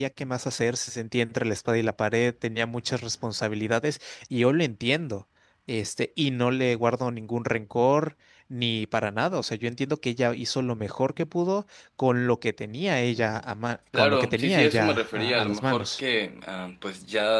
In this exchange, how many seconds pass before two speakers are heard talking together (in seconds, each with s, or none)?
13.9 s